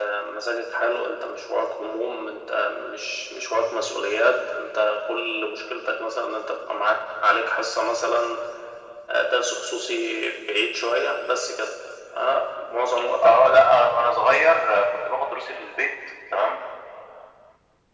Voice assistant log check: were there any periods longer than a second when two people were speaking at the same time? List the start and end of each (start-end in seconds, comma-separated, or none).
none